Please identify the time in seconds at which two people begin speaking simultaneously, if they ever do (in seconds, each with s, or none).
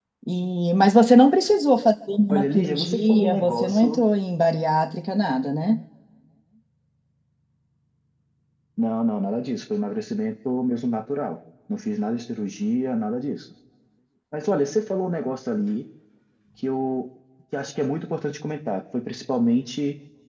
2.3 s